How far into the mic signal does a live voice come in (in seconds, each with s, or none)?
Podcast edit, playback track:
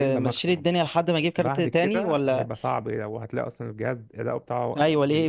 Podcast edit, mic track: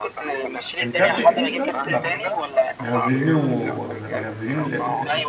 0.8 s